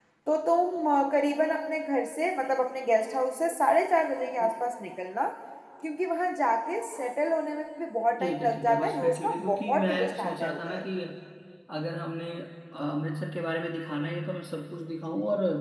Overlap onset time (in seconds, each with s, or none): 8.2 s